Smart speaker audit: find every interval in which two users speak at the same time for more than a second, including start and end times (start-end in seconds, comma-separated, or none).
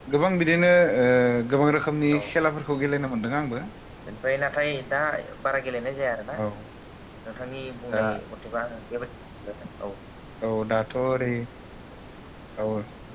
none